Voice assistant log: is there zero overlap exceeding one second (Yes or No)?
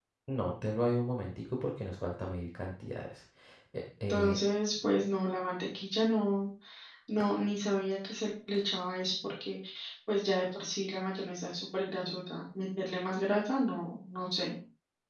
Yes